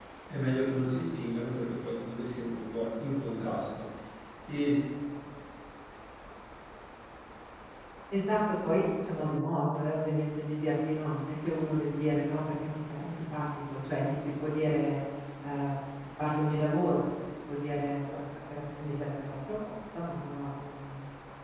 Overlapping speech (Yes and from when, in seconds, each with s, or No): No